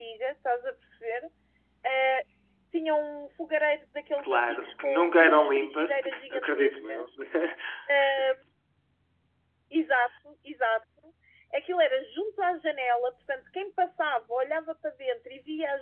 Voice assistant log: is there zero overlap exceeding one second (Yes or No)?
No